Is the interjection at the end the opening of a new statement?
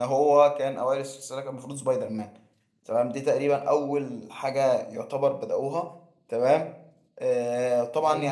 No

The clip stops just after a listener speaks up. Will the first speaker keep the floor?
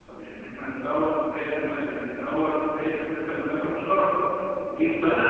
Yes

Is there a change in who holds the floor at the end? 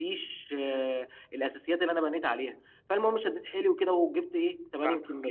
No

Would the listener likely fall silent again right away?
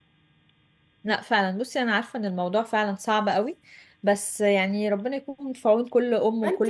No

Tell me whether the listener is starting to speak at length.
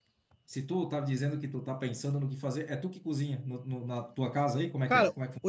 Yes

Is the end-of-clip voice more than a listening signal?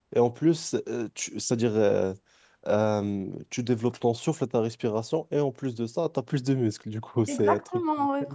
Yes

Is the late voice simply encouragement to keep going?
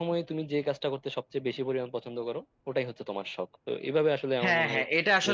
No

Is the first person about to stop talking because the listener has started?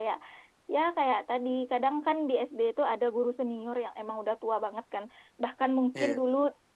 No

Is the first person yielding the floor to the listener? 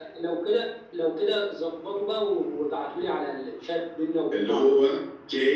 Yes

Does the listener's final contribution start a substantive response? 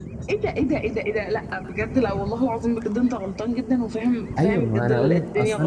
Yes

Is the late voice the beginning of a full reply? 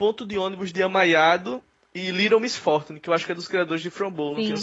Yes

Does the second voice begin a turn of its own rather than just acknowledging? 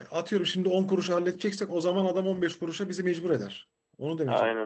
Yes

